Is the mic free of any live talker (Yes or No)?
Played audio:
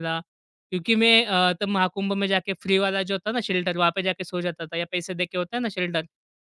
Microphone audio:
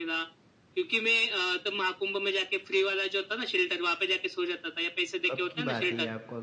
No